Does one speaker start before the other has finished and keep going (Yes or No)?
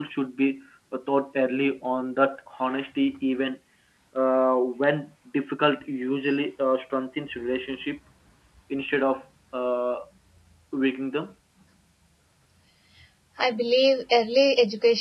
No